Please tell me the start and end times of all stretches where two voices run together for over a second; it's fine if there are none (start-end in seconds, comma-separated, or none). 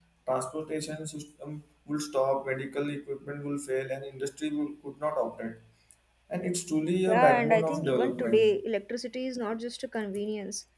7.1-8.5